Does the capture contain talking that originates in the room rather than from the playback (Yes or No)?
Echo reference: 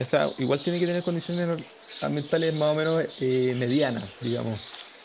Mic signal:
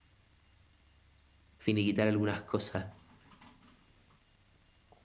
Yes